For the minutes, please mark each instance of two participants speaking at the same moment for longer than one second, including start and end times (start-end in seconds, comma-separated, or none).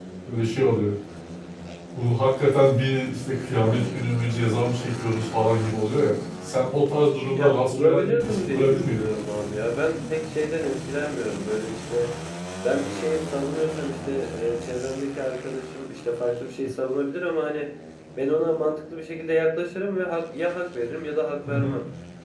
7.3-9.1